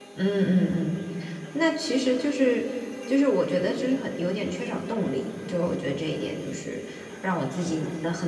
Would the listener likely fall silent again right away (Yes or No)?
Yes